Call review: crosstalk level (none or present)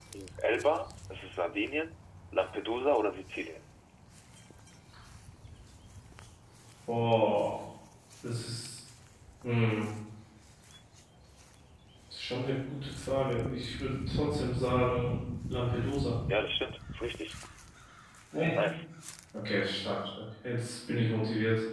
none